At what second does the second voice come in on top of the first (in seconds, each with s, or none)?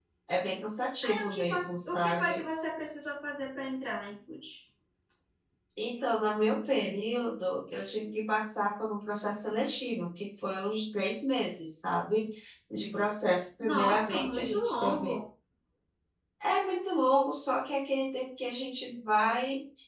1.1 s